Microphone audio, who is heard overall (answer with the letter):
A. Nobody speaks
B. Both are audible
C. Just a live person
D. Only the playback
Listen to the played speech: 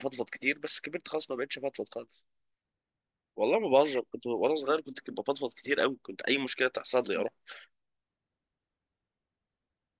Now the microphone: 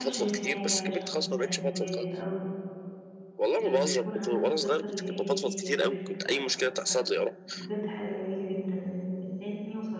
B